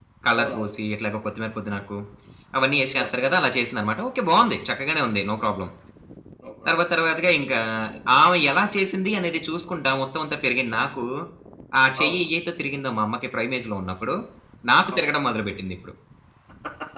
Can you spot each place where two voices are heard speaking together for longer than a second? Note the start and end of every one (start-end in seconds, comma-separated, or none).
none